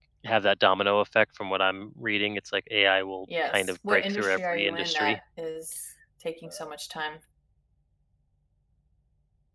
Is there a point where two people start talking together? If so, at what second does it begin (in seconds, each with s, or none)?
3.3 s